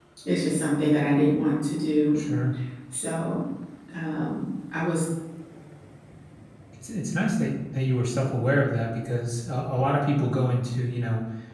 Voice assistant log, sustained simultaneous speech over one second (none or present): none